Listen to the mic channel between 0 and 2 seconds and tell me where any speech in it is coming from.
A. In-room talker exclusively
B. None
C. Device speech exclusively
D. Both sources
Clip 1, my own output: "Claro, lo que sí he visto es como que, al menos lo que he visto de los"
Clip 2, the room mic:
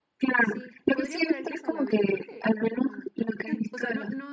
D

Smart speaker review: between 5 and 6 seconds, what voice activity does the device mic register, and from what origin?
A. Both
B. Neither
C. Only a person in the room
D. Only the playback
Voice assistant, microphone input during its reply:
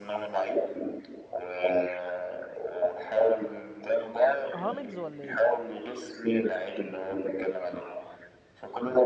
A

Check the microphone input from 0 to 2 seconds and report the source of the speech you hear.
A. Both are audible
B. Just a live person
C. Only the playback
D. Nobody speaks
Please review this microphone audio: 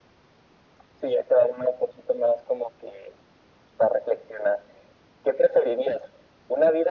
C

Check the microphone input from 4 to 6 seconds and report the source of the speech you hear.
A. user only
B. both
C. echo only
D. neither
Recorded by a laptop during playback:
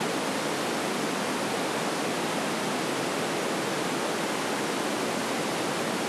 D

